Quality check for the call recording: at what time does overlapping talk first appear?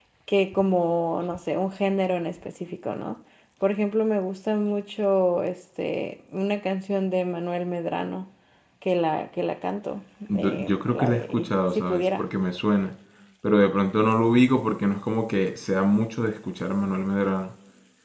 10.3 s

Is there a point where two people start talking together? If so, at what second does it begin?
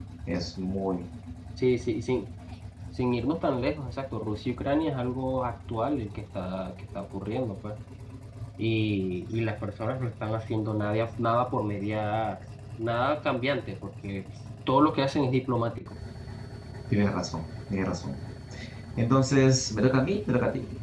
none

